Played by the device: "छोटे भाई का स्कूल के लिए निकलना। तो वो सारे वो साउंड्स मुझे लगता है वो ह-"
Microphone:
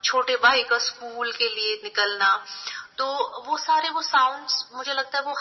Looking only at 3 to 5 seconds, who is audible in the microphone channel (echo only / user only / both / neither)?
echo only